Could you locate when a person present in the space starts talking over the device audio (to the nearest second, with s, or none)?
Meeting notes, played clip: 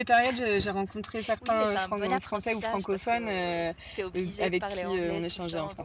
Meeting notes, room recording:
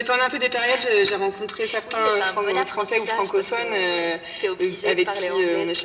none